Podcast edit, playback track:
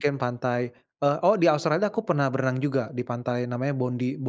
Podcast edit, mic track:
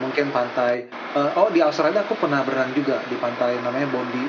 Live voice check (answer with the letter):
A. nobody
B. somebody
A